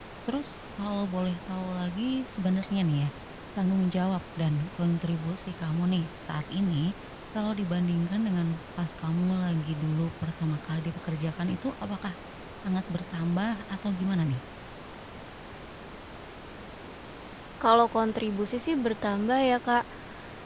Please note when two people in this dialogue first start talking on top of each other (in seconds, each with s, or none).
none